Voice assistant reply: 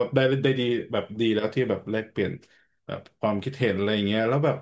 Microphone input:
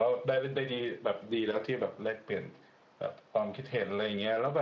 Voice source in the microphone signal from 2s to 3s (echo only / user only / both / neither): echo only